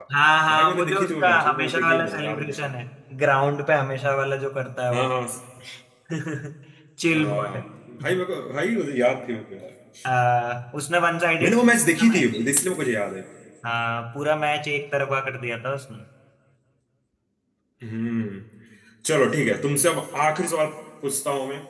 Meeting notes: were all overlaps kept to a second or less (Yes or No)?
No